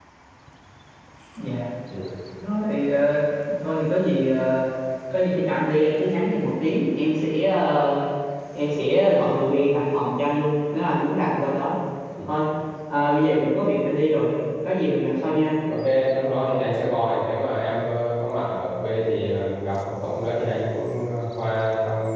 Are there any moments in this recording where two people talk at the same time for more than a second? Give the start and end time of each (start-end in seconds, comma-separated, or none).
none